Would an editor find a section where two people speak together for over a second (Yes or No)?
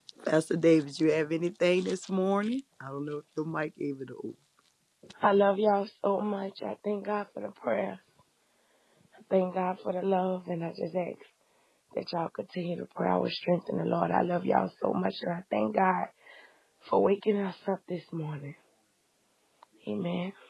No